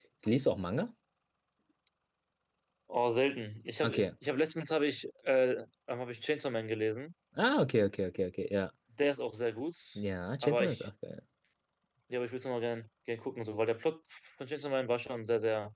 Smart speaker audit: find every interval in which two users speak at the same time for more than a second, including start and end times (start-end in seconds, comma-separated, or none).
none